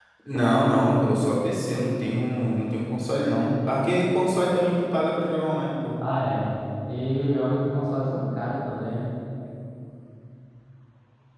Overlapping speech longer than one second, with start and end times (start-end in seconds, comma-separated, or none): none